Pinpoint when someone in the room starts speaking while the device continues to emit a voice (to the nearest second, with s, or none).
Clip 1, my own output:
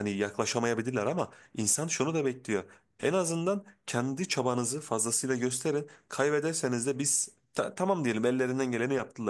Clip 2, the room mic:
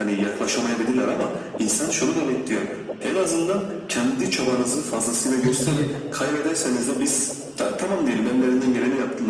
5 s